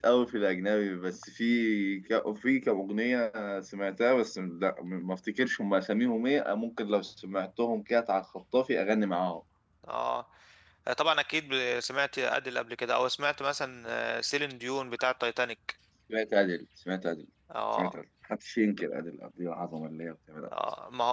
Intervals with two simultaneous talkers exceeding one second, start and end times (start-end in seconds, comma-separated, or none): none